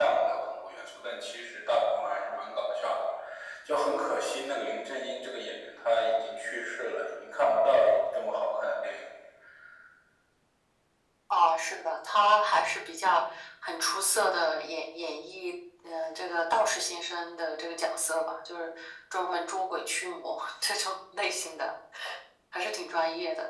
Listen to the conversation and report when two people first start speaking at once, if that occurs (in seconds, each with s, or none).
none